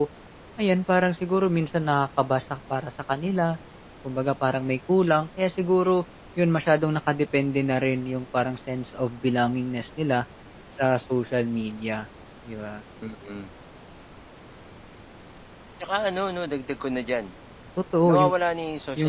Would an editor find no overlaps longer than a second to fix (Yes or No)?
Yes